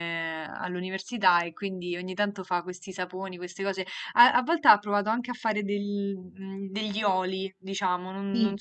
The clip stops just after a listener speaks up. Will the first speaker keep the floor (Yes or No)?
Yes